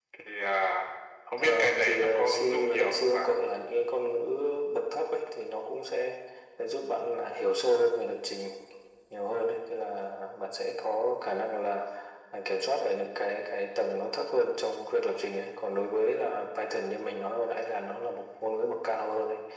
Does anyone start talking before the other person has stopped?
Yes, from 1.4 s

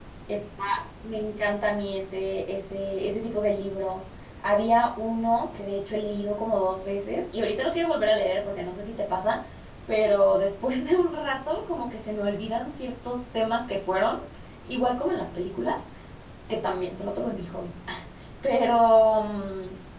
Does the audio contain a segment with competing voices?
No

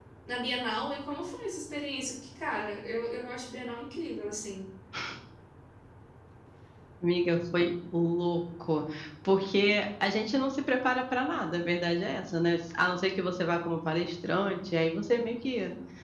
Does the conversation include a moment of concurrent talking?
No

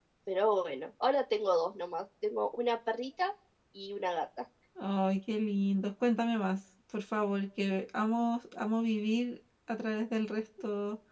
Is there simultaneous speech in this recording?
No

